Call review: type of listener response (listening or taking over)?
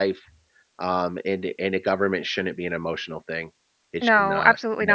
taking over